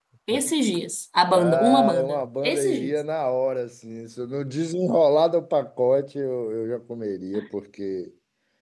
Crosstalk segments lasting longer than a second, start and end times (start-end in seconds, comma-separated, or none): 1.3-2.9